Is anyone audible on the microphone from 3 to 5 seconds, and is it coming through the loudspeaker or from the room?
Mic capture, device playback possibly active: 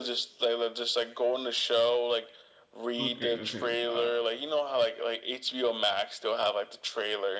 both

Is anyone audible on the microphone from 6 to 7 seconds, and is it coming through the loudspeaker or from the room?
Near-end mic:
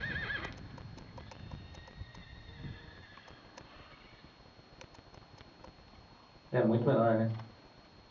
user only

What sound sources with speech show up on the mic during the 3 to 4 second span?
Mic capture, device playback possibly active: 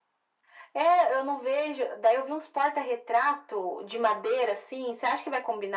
echo only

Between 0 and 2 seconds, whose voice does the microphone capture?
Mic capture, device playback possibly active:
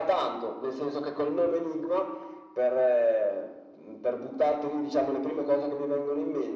echo only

